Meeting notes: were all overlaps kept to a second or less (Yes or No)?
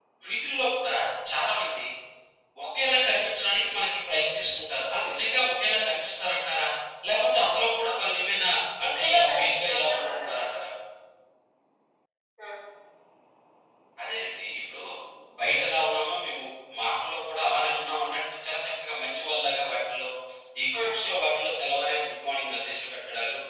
No